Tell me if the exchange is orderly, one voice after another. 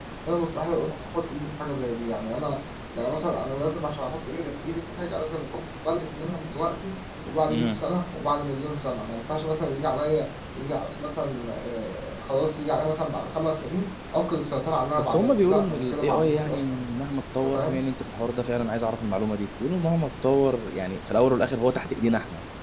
No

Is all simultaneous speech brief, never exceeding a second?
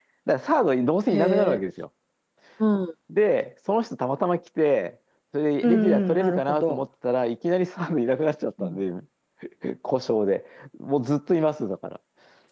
No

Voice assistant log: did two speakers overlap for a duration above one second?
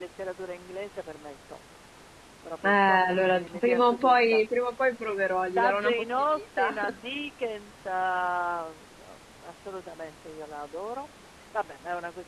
Yes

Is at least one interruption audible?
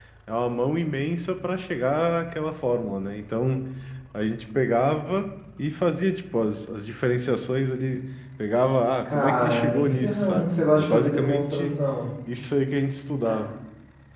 Yes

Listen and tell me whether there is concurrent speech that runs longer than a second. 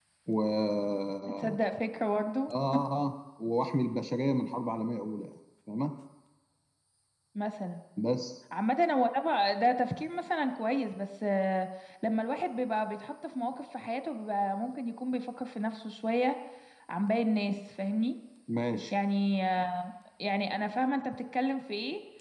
No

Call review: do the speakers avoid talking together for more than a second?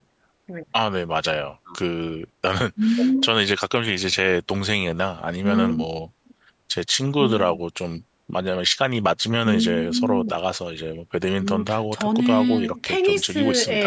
No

